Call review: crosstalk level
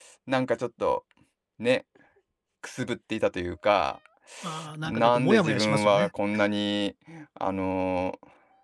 present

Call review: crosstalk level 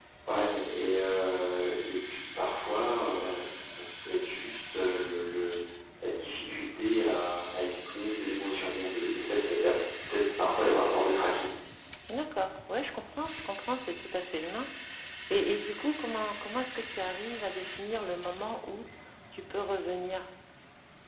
none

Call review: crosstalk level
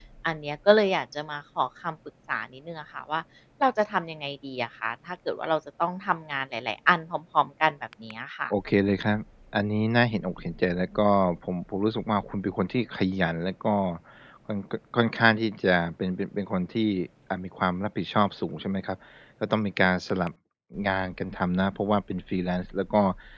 none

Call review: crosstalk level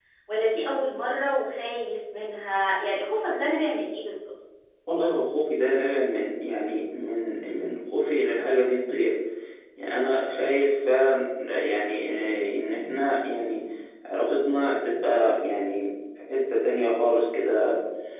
none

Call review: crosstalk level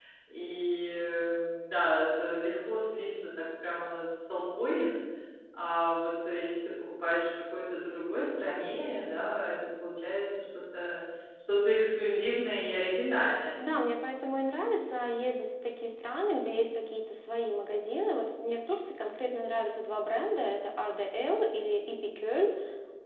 none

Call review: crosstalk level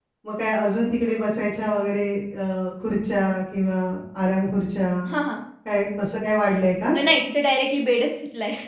none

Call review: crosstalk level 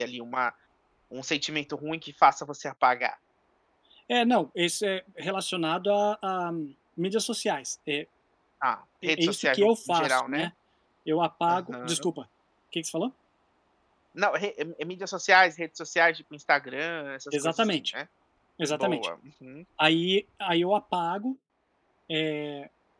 present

